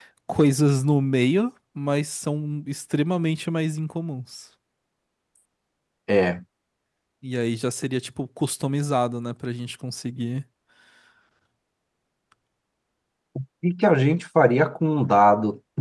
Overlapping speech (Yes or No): No